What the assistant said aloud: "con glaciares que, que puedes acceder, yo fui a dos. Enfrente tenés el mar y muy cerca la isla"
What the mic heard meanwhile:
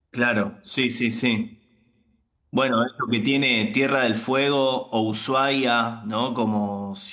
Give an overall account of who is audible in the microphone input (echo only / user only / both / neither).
user only